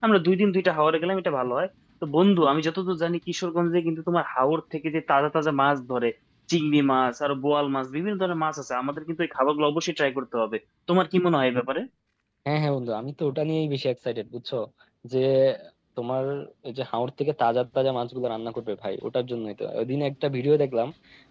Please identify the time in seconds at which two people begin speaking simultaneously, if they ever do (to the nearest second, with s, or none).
none